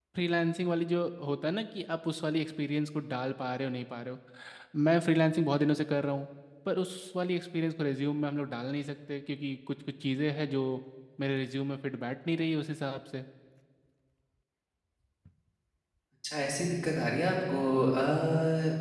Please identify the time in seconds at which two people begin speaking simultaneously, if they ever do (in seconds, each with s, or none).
none